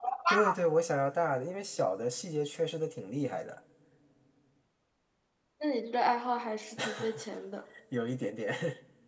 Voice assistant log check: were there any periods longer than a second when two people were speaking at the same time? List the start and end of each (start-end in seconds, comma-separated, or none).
none